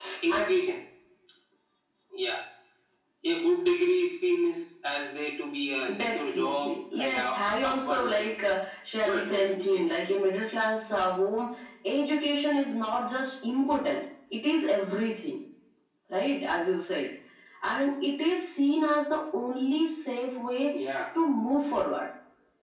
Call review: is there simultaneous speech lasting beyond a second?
Yes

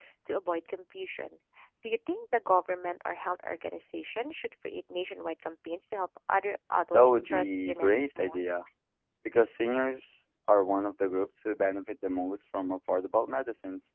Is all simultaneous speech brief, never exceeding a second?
No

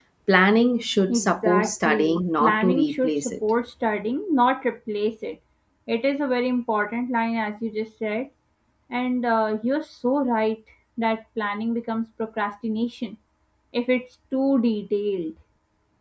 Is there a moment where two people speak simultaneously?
Yes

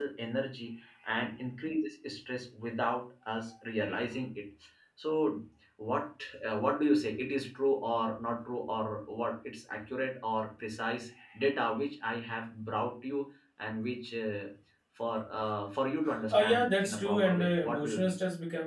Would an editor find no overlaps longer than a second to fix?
No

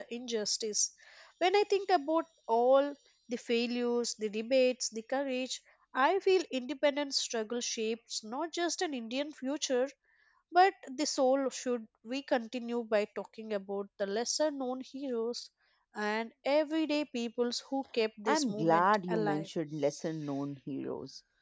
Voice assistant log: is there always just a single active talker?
No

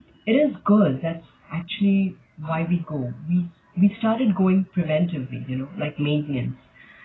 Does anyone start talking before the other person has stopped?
No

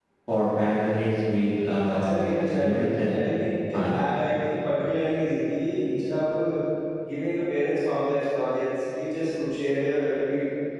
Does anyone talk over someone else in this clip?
Yes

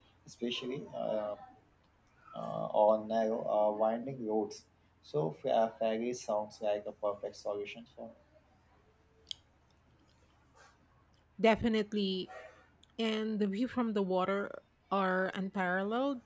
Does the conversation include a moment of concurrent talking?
No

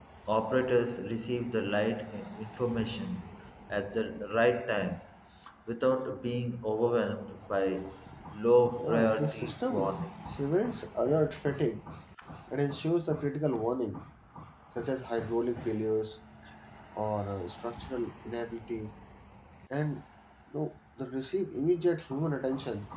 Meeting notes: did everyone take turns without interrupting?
No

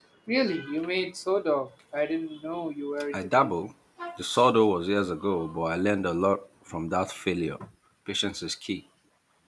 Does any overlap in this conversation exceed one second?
No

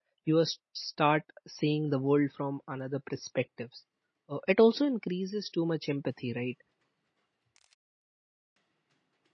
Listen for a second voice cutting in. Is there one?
No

